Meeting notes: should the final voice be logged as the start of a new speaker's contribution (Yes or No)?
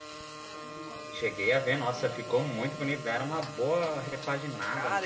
Yes